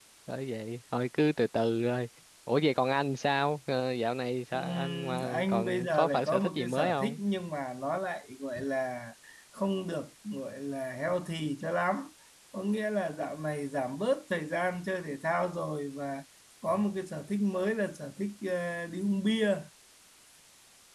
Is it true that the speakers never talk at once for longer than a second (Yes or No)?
No